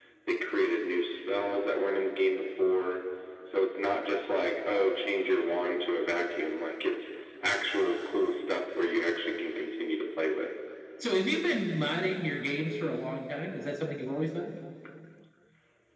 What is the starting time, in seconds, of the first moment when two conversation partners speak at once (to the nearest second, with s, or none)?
none